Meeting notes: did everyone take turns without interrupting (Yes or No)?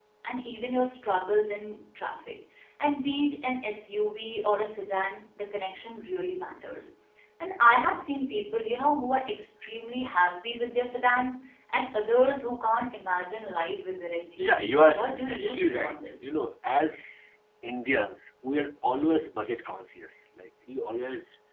No